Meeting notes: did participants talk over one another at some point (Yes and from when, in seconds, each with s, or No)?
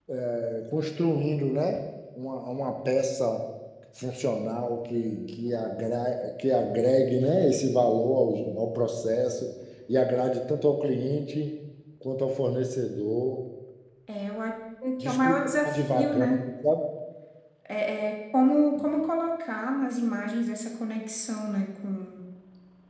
Yes, from 15.0 s